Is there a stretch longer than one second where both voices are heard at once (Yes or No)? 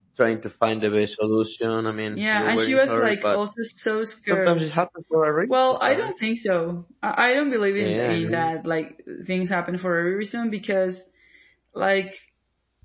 Yes